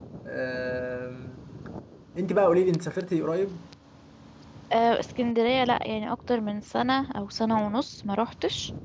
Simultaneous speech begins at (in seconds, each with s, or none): none